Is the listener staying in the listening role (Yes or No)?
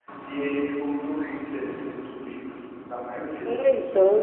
No